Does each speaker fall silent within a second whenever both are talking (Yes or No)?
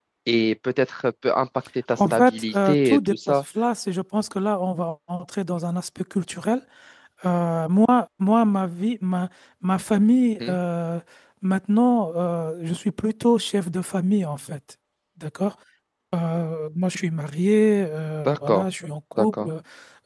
No